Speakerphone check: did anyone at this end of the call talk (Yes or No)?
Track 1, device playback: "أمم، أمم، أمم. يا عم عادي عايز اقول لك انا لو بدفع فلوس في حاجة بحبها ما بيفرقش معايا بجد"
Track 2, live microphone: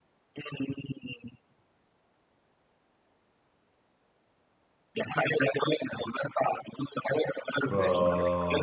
Yes